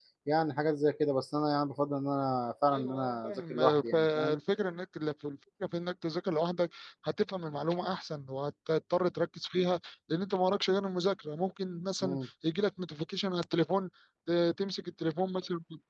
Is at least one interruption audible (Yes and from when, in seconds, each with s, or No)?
Yes, from 2.7 s